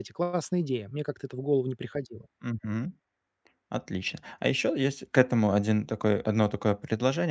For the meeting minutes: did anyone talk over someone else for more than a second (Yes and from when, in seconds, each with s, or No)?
No